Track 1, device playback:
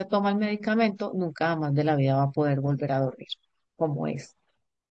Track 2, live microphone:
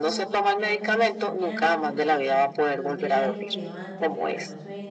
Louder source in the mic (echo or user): echo